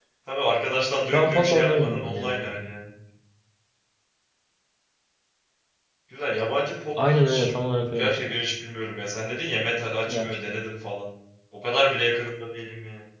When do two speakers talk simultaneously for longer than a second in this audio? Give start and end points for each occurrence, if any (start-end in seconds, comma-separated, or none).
1.1-2.4